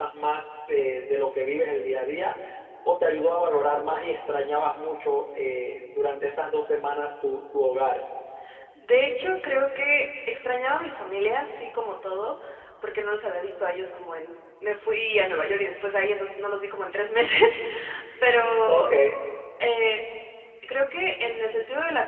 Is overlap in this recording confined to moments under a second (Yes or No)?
Yes